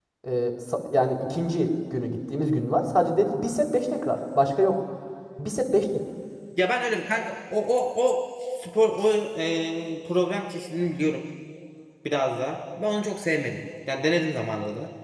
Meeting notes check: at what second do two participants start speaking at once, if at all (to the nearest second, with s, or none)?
none